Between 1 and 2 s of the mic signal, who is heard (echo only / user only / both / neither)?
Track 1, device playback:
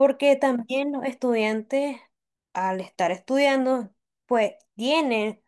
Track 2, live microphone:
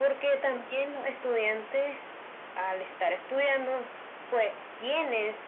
echo only